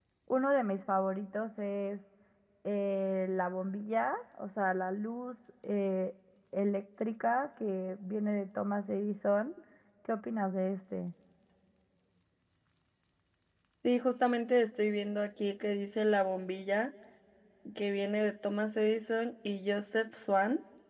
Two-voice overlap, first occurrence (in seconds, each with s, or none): none